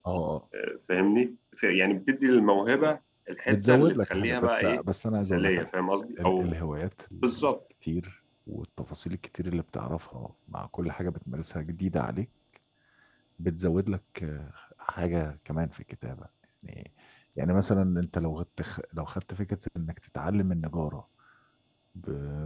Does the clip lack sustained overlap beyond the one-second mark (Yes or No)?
No